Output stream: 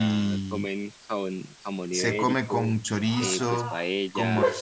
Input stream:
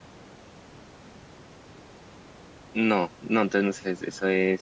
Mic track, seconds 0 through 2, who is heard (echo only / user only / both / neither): neither